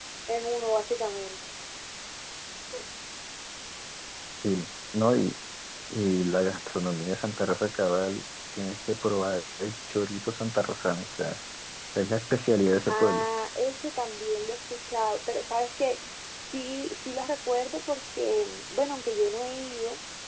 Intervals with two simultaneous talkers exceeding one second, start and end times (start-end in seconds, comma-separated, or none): none